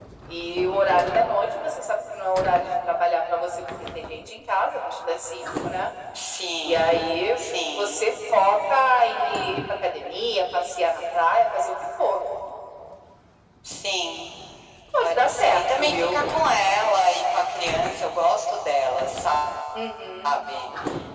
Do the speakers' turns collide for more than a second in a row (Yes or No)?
Yes